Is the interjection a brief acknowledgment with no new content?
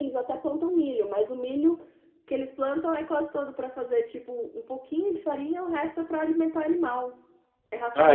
No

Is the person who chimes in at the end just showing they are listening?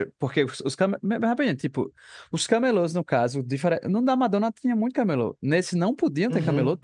No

